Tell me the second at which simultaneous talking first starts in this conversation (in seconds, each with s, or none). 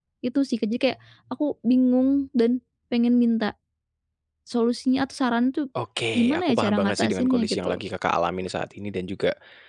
6.2 s